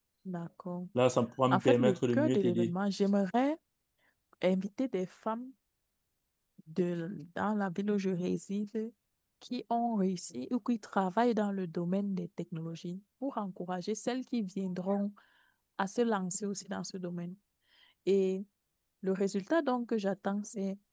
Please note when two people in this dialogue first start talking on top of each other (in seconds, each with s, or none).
1.5 s